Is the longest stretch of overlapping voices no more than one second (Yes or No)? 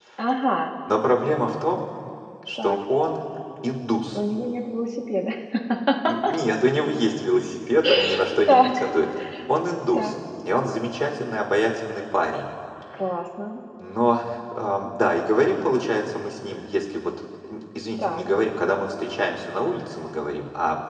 Yes